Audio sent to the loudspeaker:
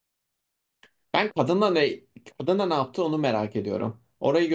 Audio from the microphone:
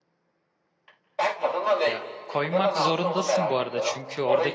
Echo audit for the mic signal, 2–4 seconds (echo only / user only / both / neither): both